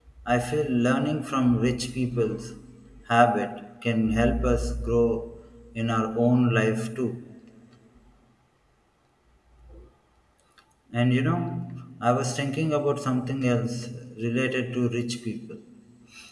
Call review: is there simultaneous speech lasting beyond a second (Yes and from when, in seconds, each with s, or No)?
No